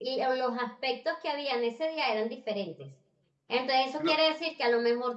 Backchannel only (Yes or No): Yes